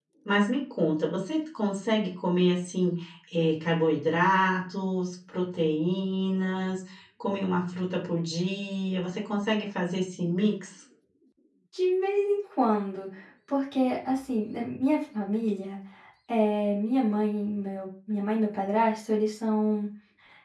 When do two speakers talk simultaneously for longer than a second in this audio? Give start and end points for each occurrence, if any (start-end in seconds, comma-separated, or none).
none